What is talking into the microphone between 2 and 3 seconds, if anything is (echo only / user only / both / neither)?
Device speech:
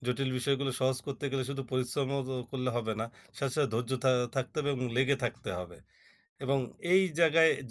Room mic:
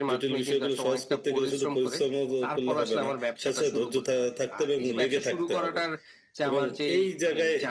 both